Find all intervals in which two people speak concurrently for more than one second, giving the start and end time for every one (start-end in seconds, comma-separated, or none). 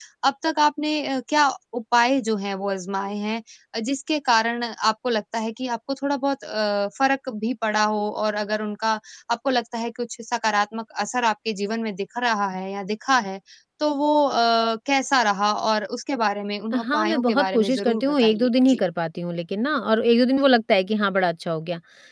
16.7-18.8